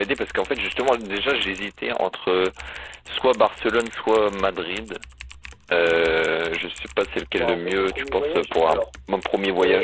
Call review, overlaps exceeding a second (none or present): present